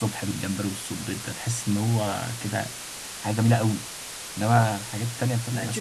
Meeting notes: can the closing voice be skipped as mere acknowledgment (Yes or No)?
No